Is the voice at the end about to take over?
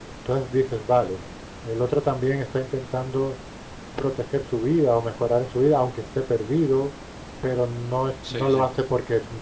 No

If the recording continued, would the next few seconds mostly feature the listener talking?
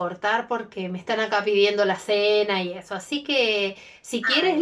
No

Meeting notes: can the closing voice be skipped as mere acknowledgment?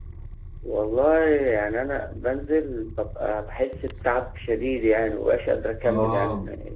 No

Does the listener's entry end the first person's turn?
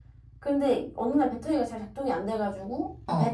No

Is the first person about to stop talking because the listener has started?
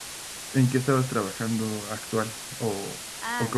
Yes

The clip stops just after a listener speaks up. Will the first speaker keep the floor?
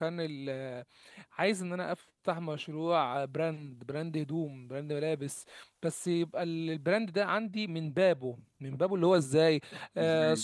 Yes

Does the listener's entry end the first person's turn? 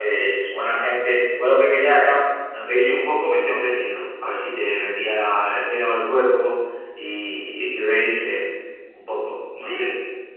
Yes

